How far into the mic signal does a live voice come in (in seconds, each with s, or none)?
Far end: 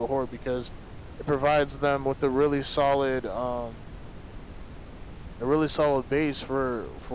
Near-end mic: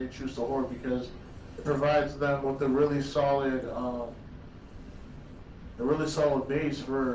none